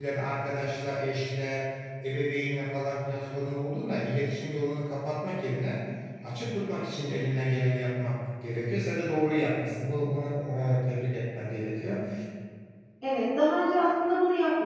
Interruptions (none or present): none